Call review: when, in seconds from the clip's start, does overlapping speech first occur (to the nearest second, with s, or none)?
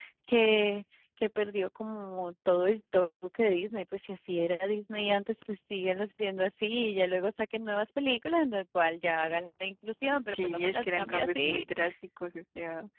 10 s